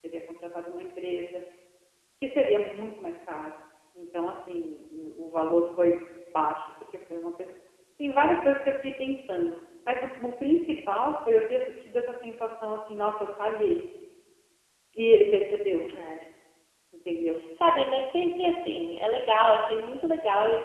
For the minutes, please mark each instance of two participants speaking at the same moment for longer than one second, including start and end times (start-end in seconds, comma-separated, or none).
none